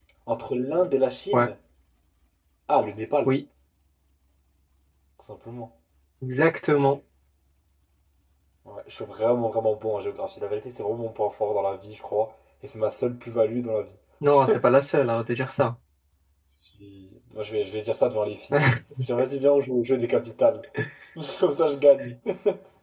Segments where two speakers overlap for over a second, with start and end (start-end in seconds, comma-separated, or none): none